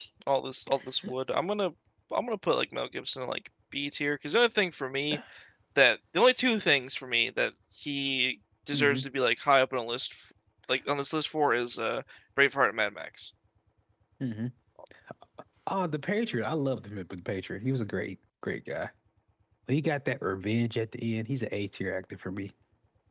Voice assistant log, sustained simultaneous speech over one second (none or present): none